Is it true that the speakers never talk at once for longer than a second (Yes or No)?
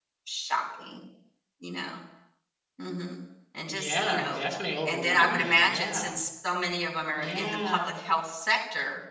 No